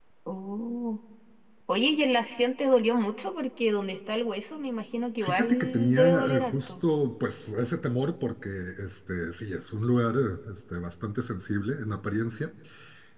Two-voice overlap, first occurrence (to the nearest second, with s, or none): 5 s